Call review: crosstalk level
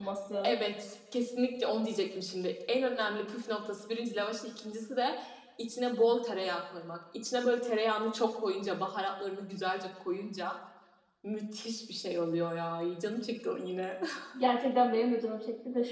none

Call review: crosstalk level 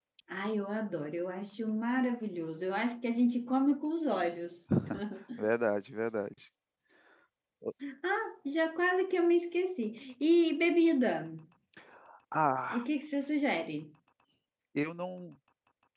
none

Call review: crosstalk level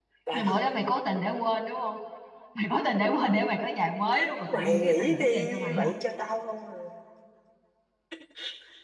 present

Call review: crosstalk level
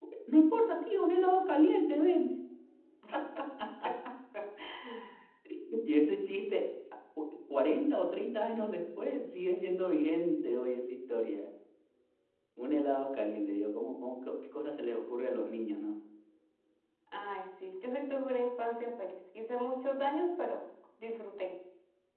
none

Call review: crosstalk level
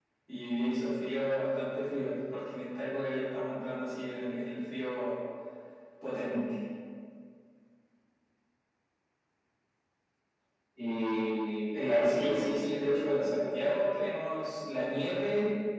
present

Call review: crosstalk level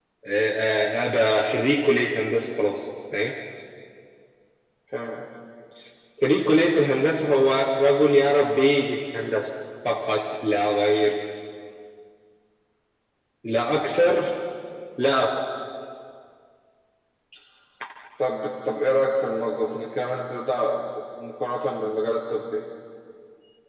none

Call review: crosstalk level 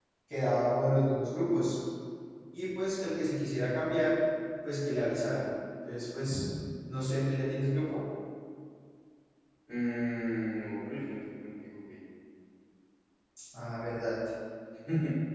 none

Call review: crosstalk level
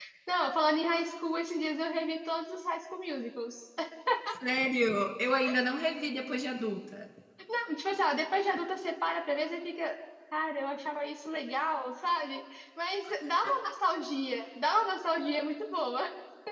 none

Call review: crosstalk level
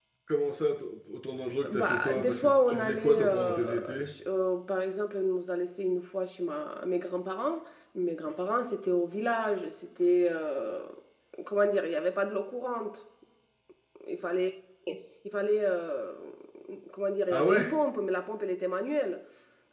present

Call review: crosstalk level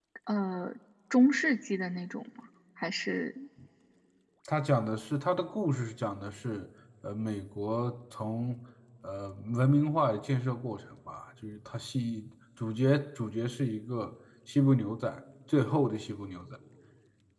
none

